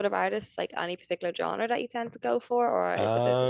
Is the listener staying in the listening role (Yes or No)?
No